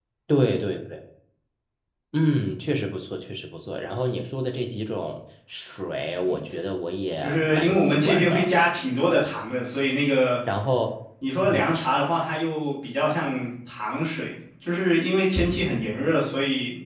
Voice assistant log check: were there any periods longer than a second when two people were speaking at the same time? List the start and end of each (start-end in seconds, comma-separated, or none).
7.2-8.5